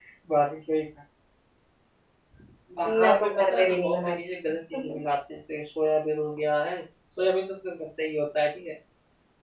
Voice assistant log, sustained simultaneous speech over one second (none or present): present